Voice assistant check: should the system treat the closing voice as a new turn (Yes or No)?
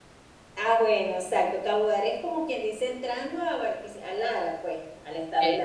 No